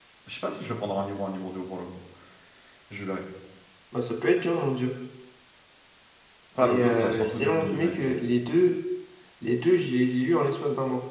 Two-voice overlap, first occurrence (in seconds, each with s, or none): 6.6 s